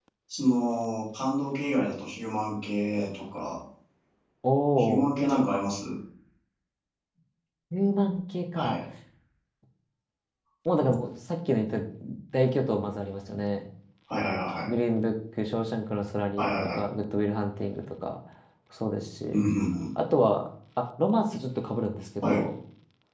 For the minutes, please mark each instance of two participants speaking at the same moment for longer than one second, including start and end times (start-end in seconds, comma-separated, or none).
none